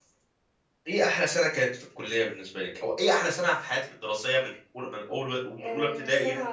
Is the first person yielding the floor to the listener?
Yes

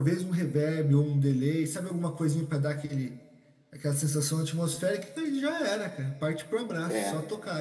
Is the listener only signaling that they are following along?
Yes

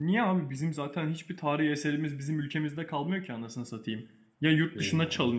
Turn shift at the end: No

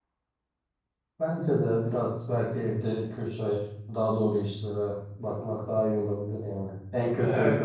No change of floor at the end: Yes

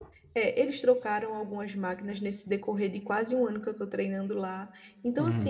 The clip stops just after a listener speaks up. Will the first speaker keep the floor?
Yes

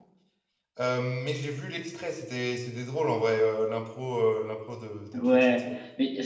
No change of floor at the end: No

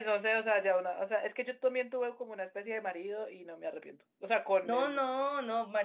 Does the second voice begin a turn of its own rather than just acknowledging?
Yes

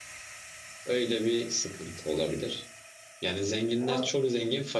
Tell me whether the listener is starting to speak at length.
No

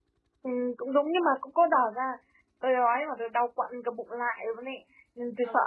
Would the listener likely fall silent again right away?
Yes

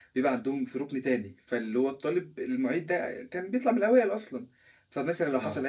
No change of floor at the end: Yes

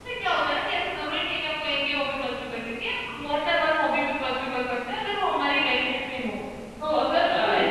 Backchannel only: Yes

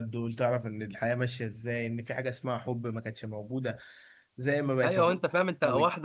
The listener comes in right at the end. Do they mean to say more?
Yes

